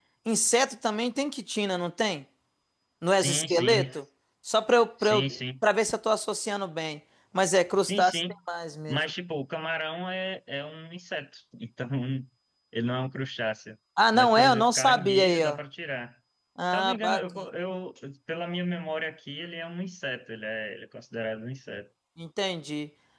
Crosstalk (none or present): present